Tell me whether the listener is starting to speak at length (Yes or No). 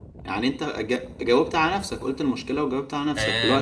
Yes